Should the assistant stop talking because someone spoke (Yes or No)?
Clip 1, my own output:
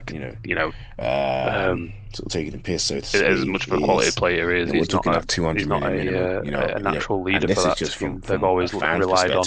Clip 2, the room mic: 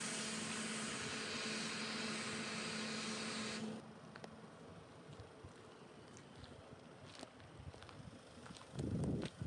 No